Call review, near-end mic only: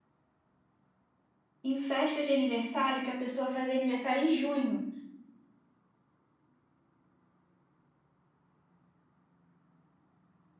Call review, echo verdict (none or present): none